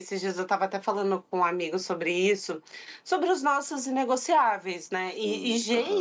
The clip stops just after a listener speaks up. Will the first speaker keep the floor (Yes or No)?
Yes